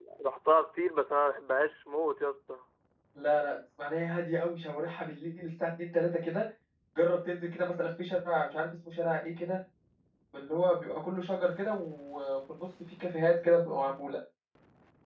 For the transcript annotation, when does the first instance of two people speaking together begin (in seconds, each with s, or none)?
none